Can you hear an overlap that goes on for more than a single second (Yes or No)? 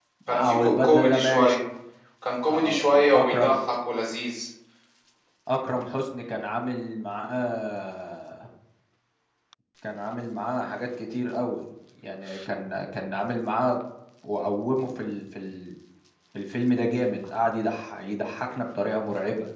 Yes